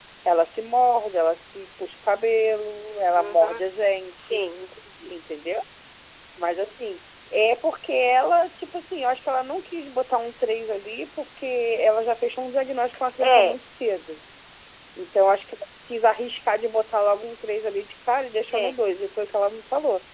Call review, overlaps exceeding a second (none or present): none